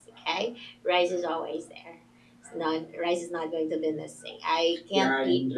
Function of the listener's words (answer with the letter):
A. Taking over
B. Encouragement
A